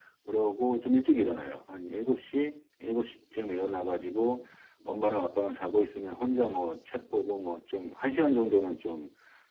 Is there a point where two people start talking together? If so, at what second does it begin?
none

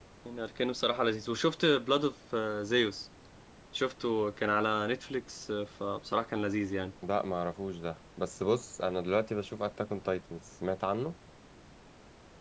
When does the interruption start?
none

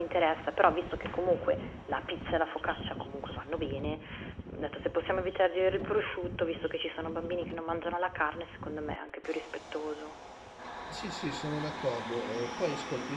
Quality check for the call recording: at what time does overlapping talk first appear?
none

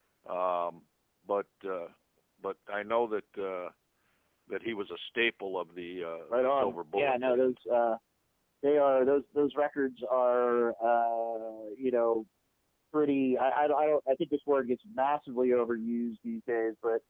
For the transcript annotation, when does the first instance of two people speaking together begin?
6.3 s

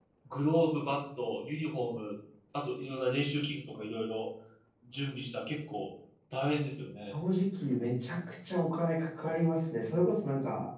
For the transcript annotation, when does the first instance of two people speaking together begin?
none

